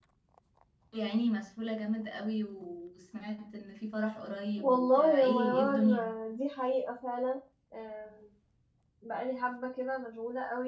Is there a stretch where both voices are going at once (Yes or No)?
Yes